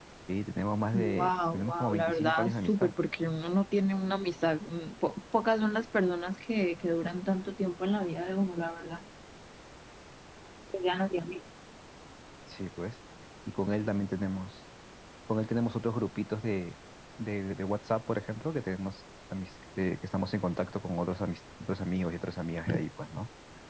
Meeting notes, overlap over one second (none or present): present